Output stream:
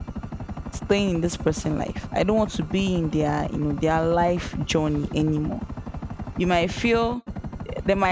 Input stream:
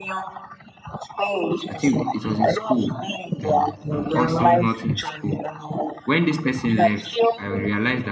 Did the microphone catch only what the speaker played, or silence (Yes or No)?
No